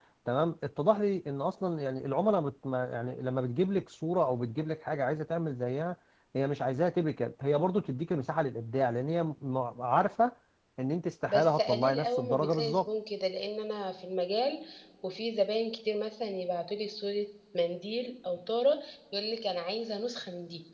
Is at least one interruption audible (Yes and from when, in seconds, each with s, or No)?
Yes, from 11.3 s